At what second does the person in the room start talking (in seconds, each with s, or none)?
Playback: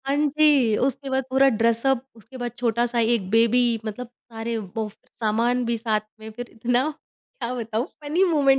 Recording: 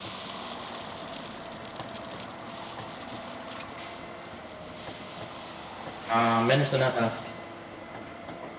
6.1 s